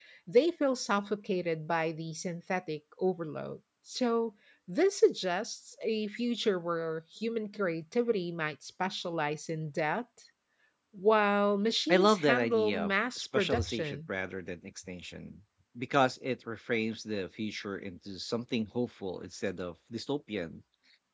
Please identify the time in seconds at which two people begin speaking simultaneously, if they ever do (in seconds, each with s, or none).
11.9 s